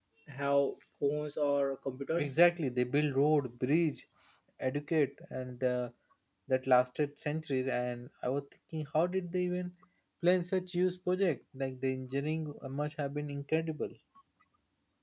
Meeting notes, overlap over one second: none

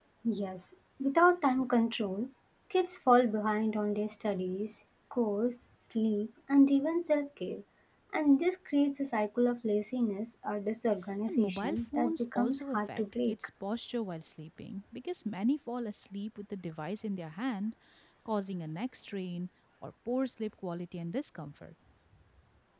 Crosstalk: present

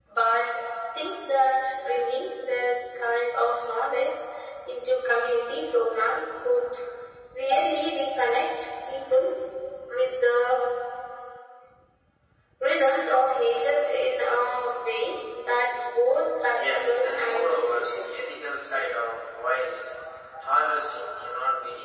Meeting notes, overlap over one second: present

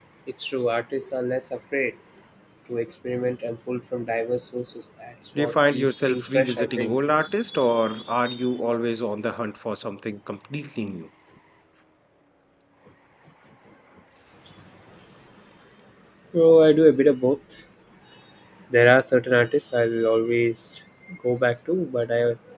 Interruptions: present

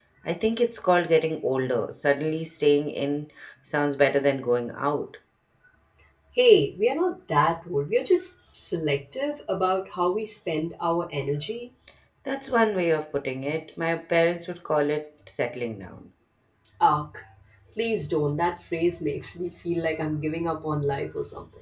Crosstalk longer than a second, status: none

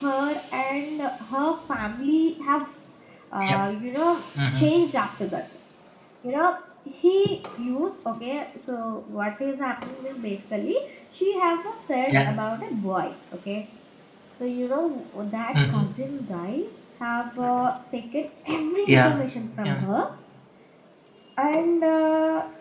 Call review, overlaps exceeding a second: none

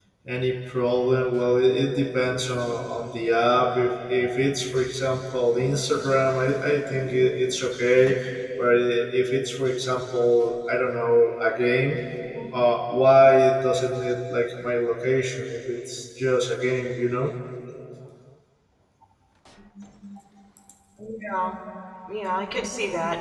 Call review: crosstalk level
none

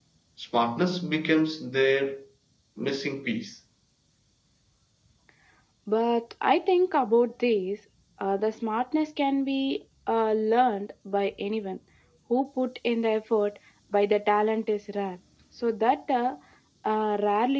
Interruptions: none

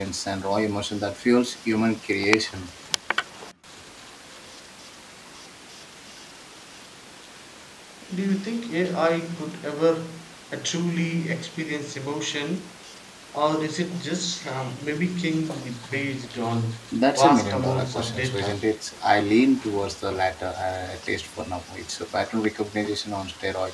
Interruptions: present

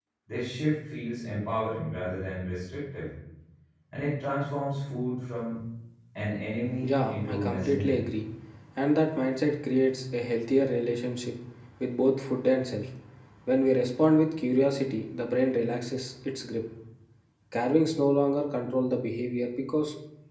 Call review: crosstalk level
present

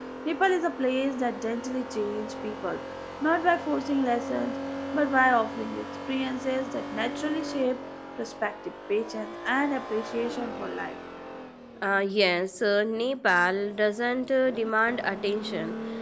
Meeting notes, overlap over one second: none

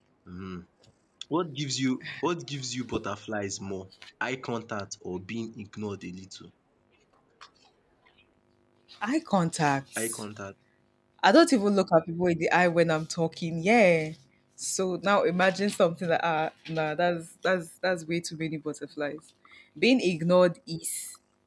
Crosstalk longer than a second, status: none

